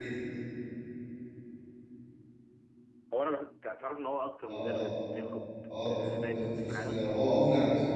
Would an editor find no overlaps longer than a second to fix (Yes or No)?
No